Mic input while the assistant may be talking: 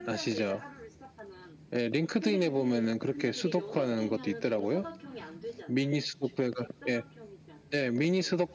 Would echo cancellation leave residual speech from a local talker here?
Yes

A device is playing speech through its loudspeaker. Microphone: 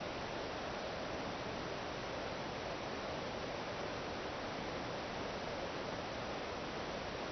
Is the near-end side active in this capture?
No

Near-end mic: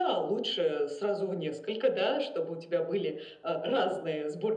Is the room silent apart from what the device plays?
Yes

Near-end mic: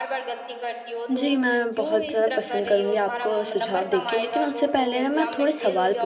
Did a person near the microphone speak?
Yes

